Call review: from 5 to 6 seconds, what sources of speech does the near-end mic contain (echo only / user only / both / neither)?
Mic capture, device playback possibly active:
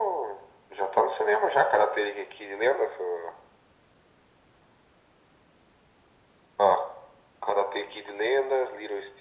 neither